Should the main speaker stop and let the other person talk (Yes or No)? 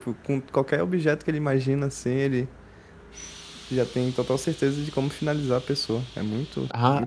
Yes